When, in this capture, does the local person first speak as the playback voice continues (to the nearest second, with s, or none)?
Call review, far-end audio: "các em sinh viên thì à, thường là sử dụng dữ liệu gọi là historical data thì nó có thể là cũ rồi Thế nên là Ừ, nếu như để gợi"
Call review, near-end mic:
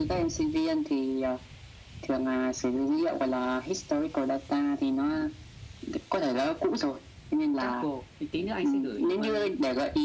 8 s